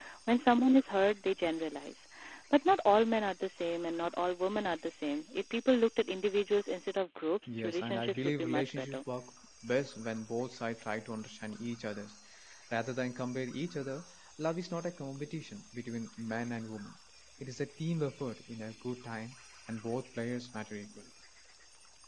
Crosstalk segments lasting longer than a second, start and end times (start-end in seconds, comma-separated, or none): 7.5-9.0